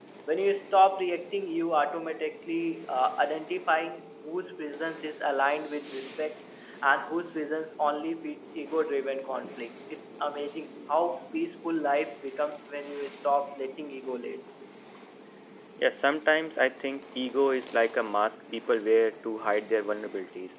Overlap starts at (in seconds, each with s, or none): none